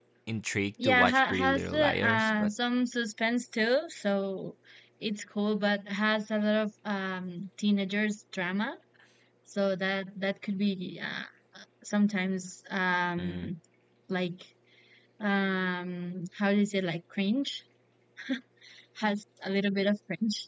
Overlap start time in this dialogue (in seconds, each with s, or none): 0.8 s